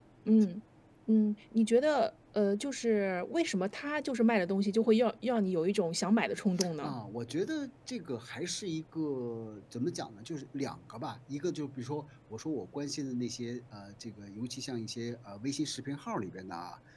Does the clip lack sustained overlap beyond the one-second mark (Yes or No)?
Yes